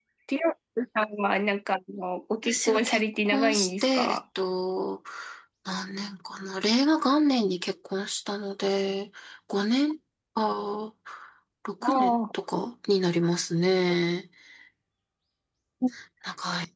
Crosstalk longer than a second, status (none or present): present